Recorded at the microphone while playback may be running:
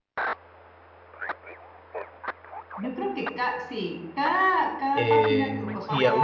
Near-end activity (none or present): present